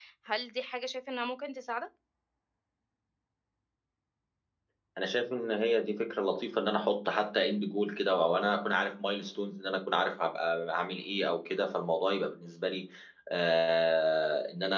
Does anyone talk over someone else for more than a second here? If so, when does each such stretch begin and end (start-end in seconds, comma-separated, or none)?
none